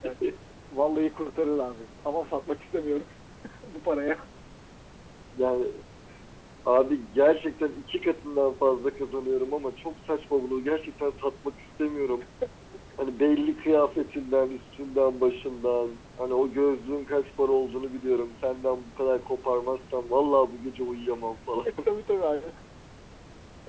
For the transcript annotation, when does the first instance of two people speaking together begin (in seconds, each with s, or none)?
none